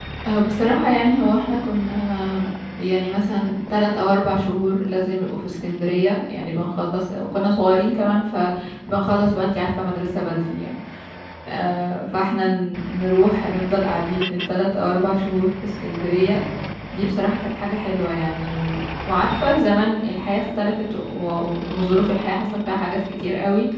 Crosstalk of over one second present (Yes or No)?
No